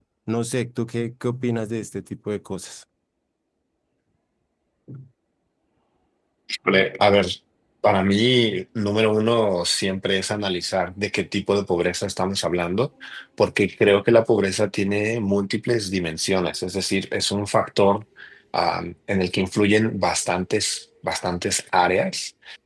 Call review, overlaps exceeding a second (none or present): none